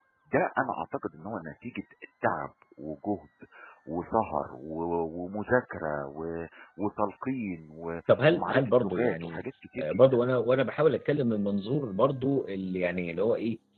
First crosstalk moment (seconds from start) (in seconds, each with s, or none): 8.1 s